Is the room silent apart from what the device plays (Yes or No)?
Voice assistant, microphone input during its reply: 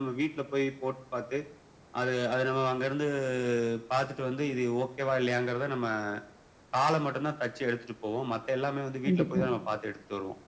No